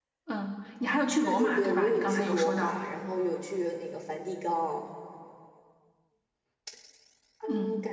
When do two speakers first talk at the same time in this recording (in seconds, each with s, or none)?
1.2 s